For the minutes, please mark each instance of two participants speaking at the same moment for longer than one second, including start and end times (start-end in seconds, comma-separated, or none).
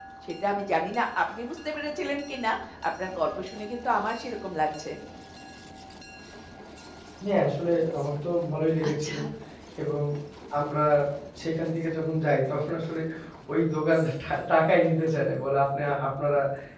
none